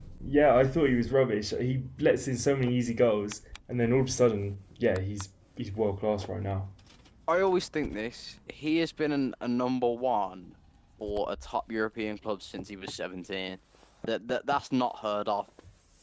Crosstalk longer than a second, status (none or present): none